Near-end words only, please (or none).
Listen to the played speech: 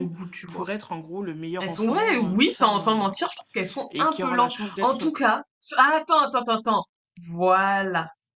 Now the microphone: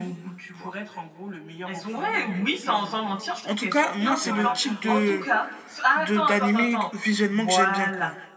En tout cas, moi, c'est le type de de d'animé visuellement que j'aime bien, quoi.